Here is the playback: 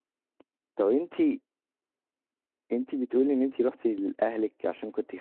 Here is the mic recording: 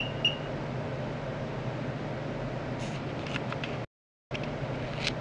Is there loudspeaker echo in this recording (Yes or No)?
No